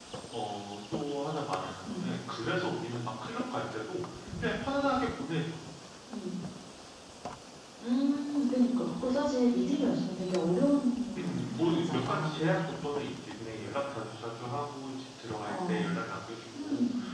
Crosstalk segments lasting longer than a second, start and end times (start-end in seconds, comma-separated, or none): 11.2-12.4